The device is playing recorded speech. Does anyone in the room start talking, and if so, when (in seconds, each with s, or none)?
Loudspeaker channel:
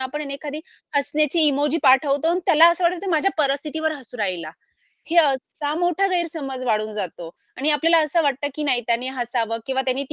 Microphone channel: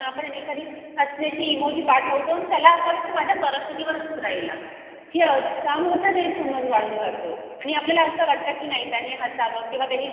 none